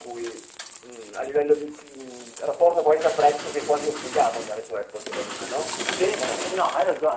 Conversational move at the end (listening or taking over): taking over